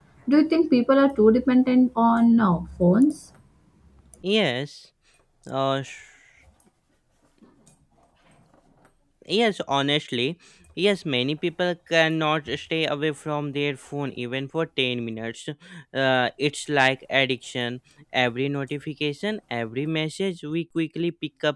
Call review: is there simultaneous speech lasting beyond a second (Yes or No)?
No